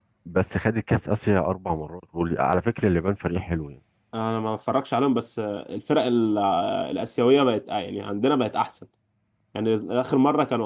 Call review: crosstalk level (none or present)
none